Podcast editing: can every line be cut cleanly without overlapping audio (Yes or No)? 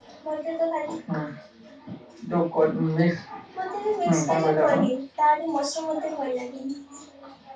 No